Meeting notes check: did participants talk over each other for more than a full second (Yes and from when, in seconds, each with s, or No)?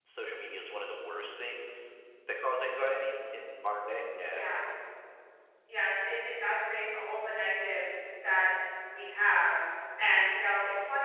No